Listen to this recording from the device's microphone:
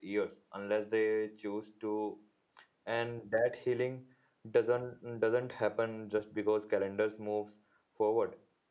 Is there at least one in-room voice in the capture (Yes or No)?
Yes